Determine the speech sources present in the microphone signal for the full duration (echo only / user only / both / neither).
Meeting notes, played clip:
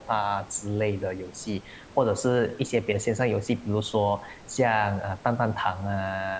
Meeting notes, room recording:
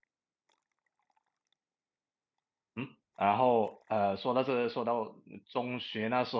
user only